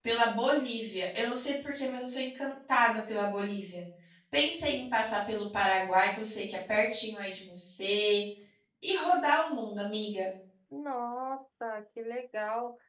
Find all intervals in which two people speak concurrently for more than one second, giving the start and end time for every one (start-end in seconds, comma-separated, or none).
none